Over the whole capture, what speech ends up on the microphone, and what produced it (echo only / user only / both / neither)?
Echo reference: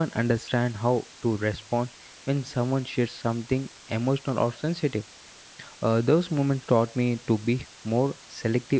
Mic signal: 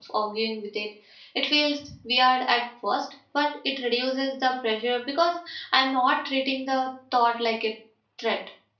user only